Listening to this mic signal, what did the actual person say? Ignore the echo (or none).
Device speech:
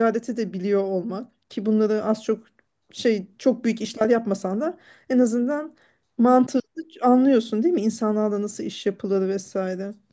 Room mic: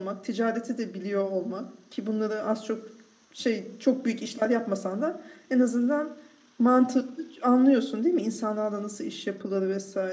none